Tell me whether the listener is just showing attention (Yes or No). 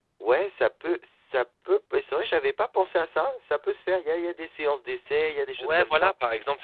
No